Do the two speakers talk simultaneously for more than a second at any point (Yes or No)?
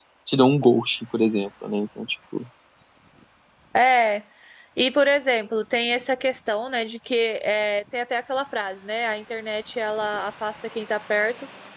No